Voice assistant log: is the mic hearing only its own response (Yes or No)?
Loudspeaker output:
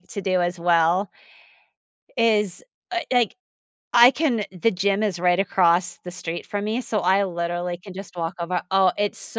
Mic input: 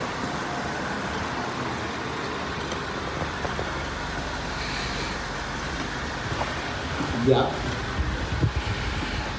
No